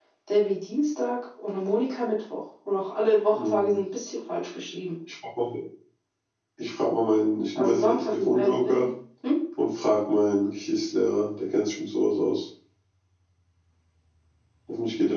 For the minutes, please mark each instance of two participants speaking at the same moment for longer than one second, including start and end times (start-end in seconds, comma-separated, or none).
7.5-8.9